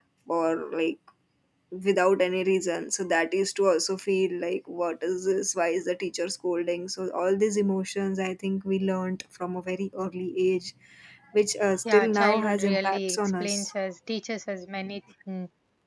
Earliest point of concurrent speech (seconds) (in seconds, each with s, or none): 11.8 s